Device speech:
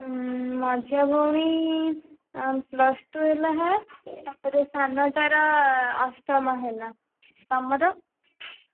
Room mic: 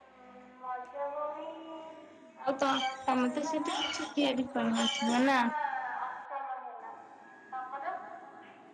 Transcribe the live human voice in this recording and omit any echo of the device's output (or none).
ଆଉ ତ ତମେ ତ ସେଠି କିଛି ତିଆରି କରି ନଥିବ ନା।